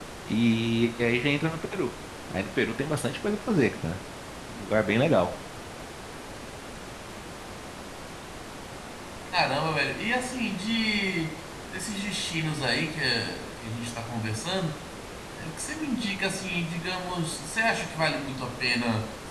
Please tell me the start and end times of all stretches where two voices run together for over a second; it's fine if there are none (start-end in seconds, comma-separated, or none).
none